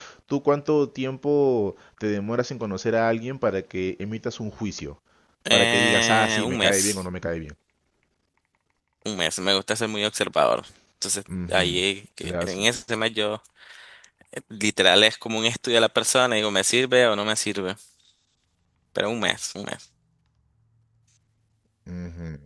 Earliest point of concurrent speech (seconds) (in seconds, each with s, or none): 5.5 s